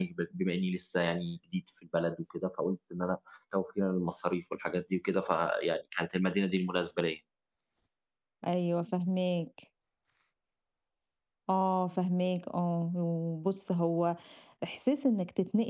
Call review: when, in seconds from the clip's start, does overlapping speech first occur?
none

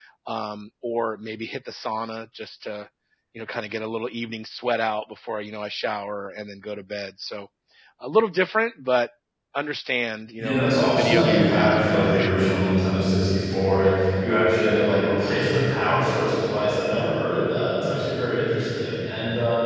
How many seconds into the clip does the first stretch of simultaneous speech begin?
10.4 s

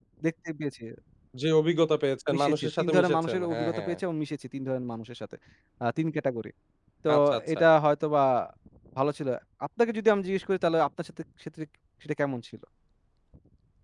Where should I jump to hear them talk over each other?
2.3 s

